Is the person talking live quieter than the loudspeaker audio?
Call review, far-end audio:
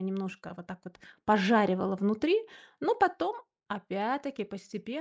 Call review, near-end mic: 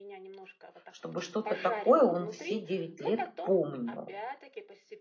No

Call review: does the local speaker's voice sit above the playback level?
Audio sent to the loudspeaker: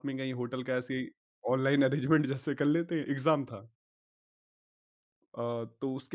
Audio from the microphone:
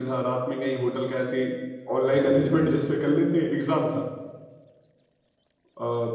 No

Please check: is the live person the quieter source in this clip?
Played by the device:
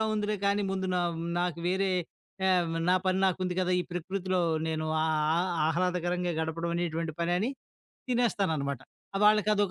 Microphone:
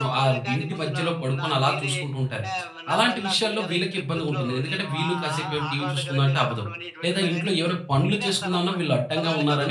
No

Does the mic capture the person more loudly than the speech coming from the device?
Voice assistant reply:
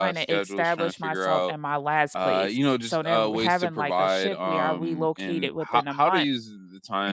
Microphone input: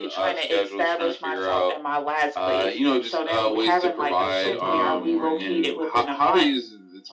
No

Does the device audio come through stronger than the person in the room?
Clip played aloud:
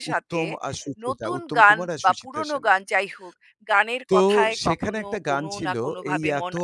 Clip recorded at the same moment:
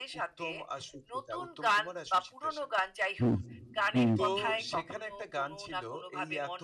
No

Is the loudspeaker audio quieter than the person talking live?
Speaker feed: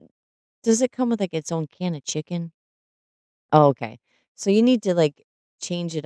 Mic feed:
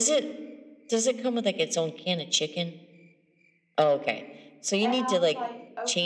No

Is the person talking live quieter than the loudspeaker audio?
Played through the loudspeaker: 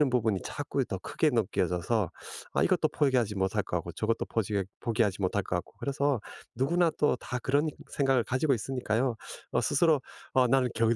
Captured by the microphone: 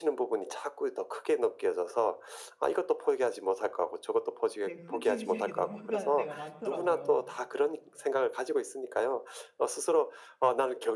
Yes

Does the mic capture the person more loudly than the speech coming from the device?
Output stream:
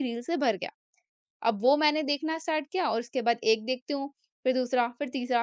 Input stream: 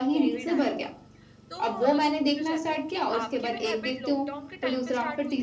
No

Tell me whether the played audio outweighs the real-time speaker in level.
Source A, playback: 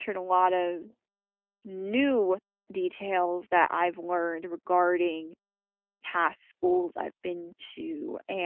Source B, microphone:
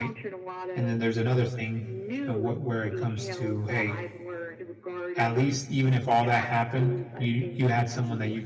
No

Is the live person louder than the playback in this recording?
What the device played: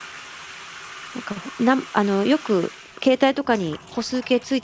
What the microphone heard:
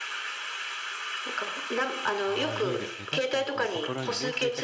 No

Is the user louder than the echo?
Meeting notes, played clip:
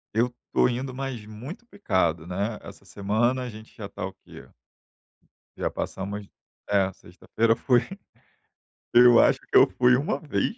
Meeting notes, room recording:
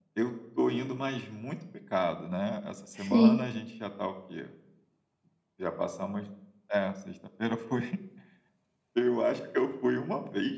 Yes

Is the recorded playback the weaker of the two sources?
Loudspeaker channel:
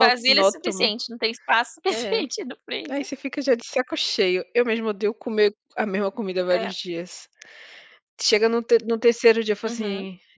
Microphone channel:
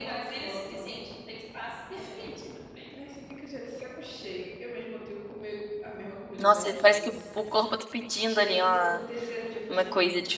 Yes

